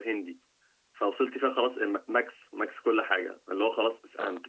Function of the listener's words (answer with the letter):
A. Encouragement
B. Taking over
A